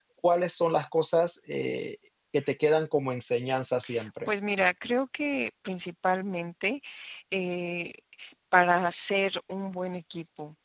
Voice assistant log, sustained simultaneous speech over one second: none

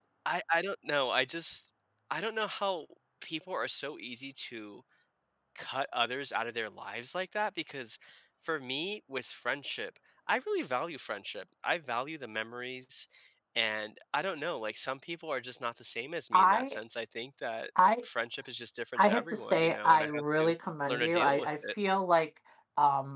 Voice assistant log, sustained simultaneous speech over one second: present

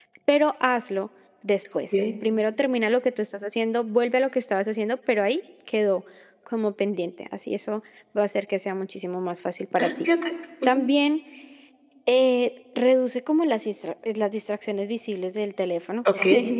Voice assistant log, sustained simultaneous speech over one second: none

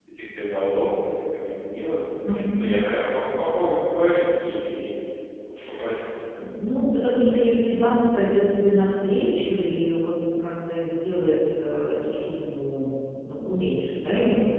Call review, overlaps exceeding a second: none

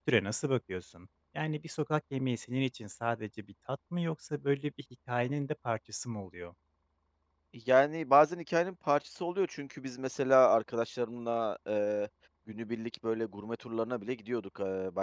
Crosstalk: none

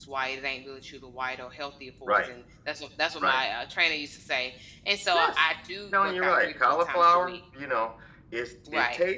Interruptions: present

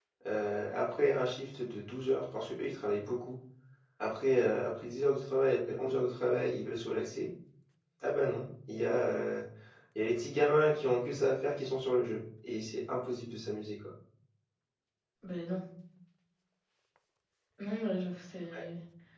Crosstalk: none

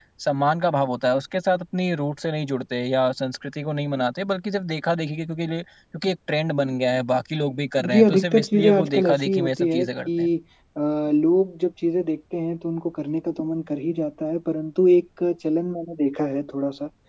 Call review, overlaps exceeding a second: present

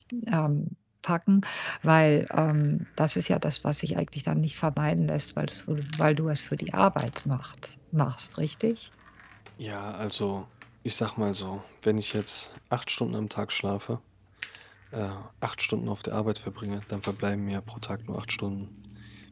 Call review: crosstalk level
none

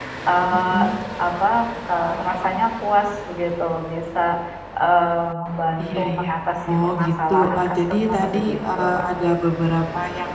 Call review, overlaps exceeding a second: present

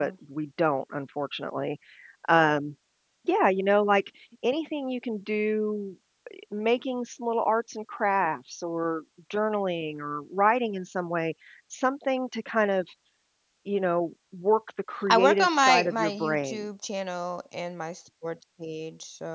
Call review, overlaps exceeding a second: present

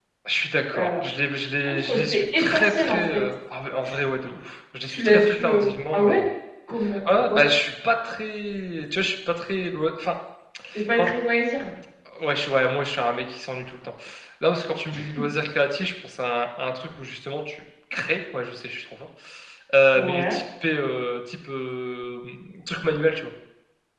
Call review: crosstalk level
present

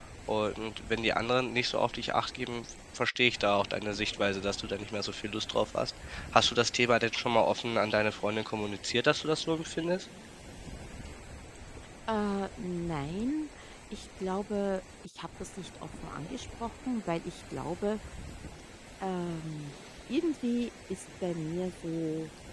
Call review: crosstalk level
none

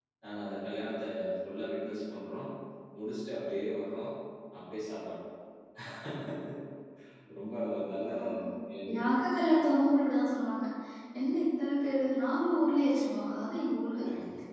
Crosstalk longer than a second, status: none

